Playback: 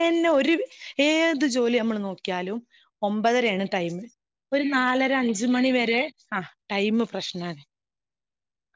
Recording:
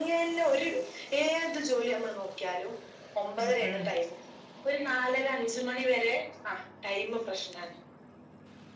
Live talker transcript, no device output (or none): ഉം ഉം